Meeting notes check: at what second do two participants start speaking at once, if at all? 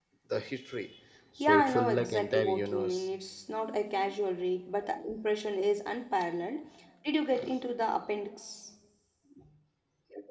1.4 s

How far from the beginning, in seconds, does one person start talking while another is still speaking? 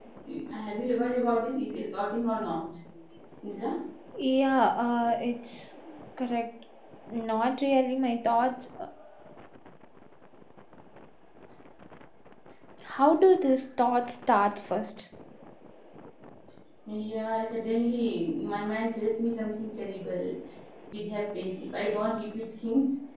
none

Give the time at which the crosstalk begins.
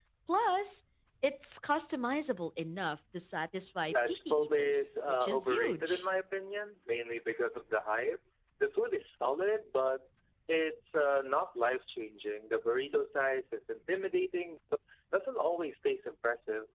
3.9 s

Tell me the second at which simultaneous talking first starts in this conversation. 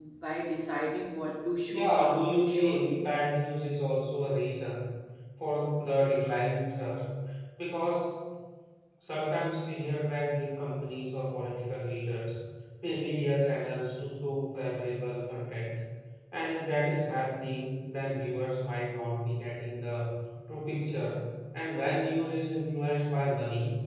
1.7 s

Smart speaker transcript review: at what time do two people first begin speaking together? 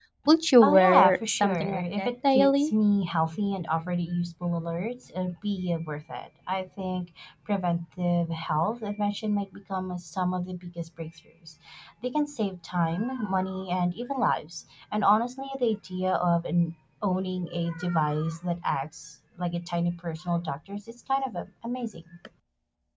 0.6 s

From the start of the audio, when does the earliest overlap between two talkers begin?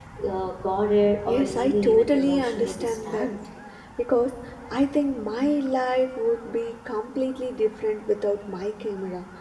1.3 s

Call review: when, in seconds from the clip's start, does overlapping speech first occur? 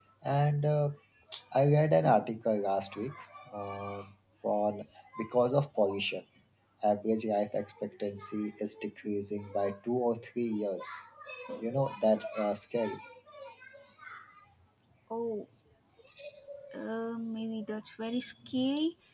none

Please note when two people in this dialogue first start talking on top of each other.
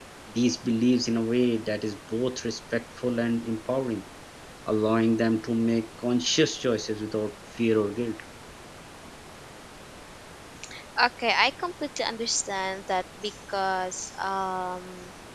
none

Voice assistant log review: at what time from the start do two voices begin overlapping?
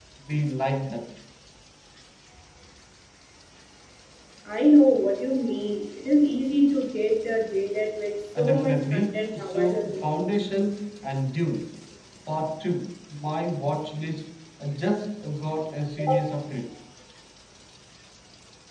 8.3 s

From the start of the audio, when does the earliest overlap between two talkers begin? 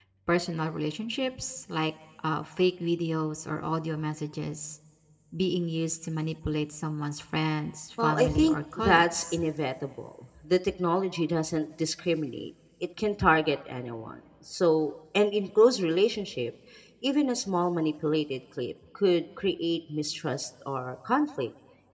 8.0 s

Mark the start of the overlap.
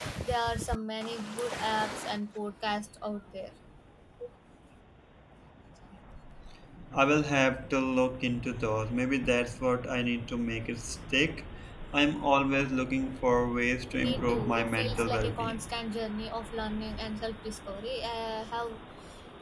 14.0 s

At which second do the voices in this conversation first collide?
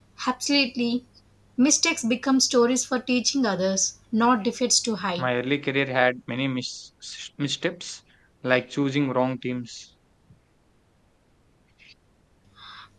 none

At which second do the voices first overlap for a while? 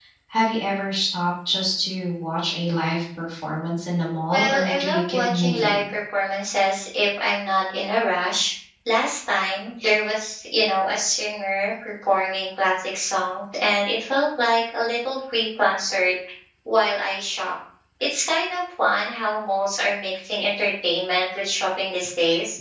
4.3 s

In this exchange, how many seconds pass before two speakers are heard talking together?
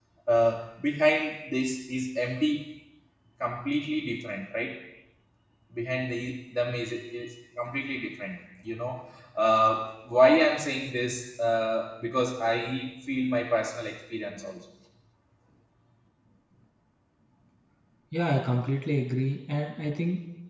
none

